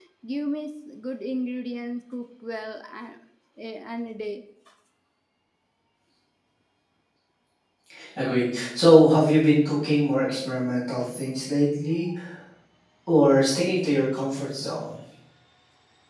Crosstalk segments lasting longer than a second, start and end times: none

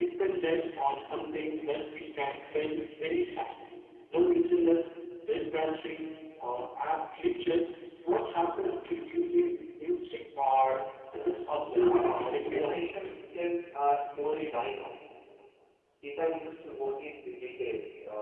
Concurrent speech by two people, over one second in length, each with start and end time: 11.7-12.9

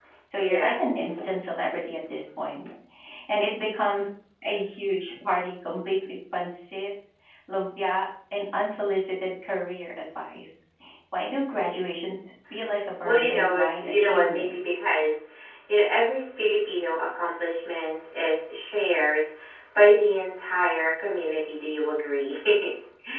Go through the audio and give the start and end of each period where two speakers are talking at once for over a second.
13.0-14.5

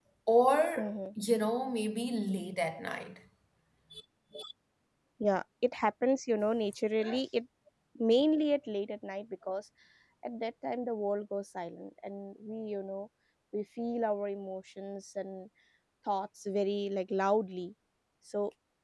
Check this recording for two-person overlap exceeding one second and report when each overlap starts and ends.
none

